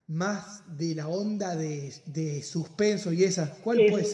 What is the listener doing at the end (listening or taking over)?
taking over